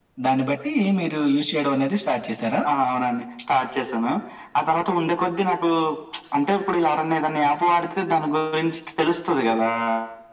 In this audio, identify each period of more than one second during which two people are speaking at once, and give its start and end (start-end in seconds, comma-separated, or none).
none